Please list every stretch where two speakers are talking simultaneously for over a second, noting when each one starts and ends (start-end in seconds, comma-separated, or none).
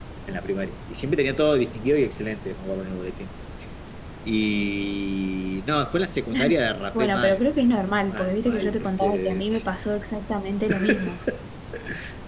8.1-9.4